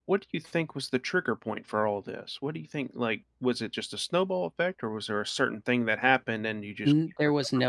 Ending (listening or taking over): taking over